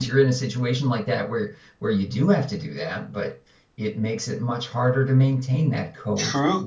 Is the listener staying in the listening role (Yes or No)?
No